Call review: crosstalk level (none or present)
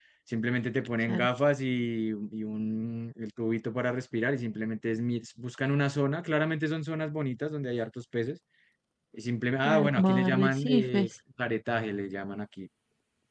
present